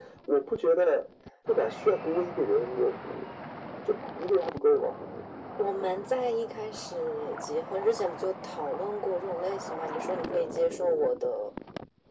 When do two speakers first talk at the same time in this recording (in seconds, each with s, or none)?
none